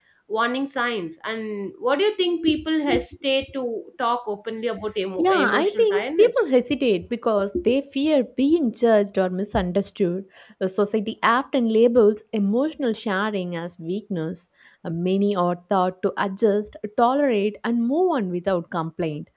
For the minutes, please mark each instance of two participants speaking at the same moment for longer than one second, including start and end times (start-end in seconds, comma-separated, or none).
5.2-6.5